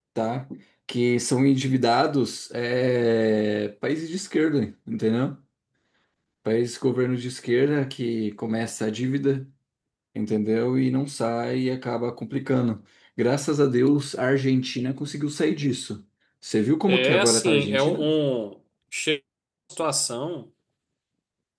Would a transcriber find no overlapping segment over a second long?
No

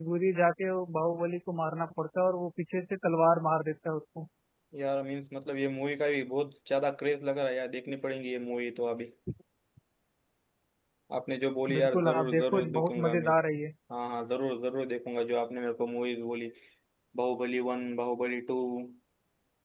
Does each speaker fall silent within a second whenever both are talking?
No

